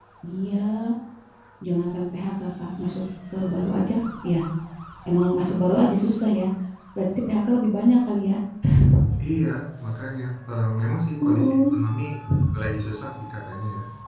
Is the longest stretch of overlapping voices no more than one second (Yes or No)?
Yes